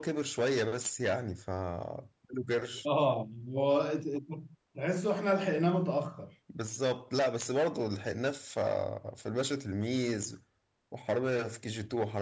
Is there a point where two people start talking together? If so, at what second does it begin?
none

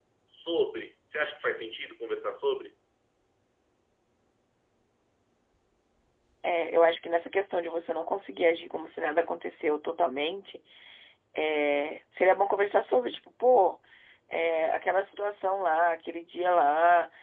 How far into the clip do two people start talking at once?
none

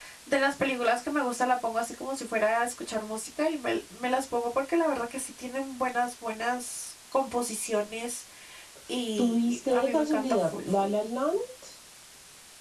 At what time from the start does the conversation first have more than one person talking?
9 s

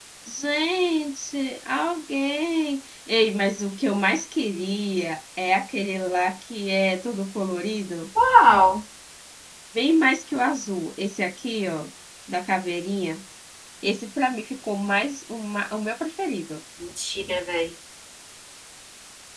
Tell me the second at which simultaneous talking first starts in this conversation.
none

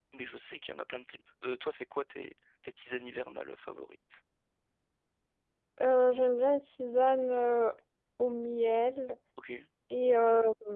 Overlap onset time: none

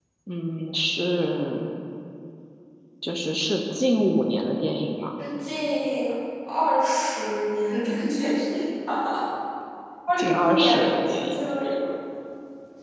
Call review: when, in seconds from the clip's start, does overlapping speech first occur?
10 s

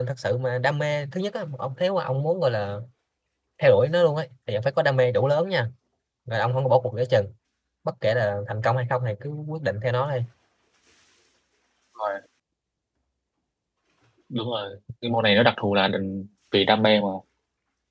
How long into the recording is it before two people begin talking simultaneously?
none

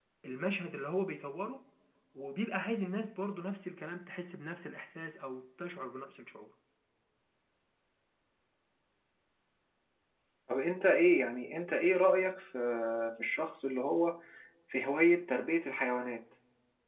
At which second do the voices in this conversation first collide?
none

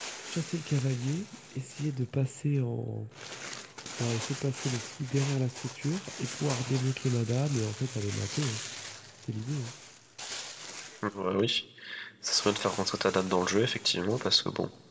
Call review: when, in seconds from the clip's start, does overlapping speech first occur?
none

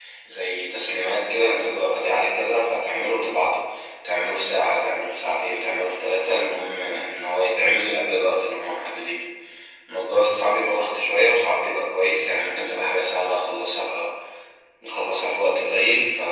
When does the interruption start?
none

